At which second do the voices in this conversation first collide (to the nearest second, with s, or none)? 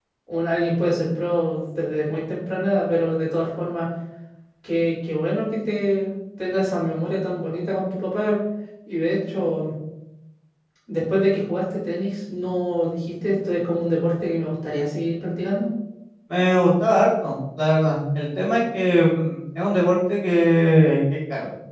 none